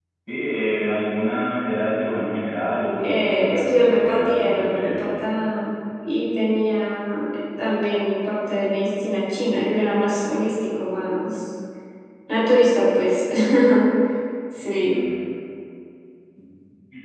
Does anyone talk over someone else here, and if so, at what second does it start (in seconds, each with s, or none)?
3.0 s